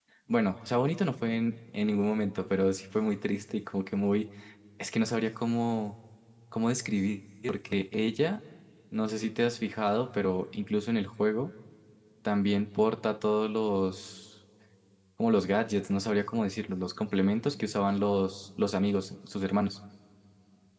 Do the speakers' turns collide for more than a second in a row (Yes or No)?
No